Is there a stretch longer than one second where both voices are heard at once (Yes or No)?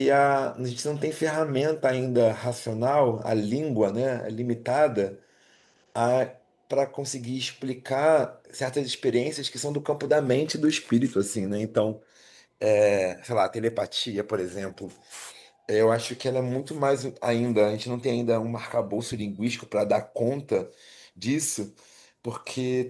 No